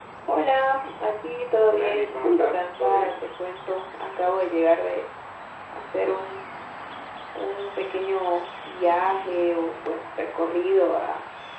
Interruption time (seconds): 1.7 s

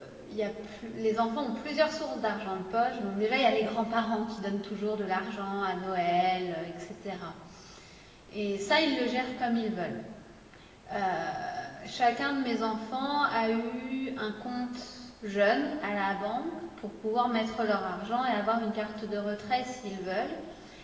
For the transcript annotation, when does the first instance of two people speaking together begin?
none

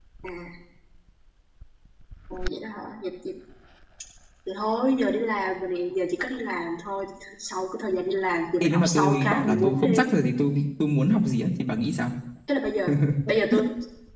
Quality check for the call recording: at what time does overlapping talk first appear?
8.6 s

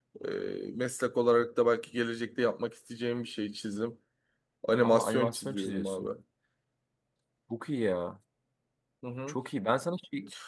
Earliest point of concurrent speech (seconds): 4.8 s

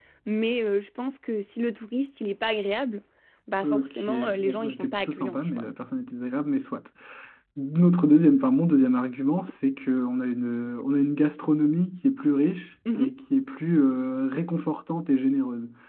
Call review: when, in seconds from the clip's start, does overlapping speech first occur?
3.6 s

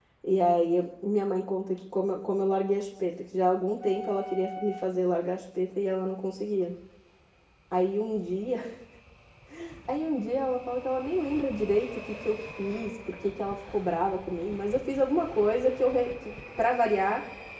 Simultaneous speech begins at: none

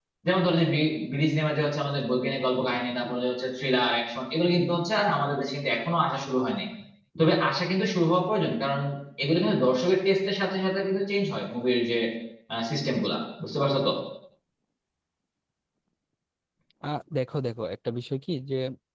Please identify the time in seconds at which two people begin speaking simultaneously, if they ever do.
none

